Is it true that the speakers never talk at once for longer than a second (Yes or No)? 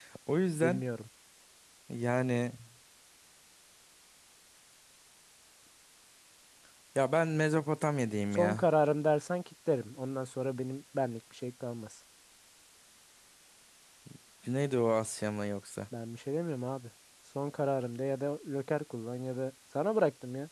Yes